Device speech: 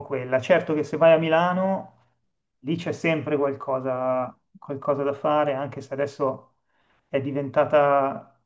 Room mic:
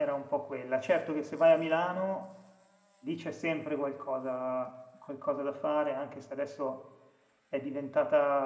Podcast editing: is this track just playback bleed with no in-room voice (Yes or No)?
Yes